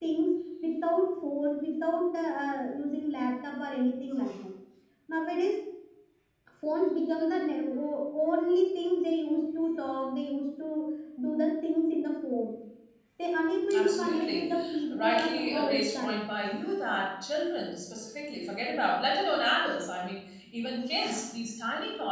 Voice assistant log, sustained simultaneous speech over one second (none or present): present